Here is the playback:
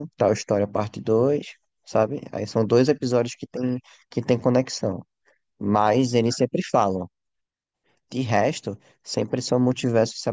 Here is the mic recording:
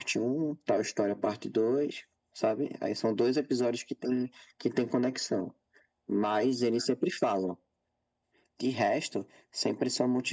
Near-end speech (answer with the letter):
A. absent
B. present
A